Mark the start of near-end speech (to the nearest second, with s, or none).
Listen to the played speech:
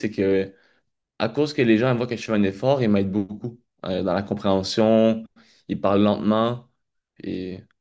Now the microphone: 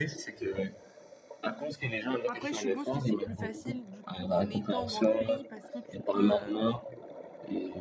2 s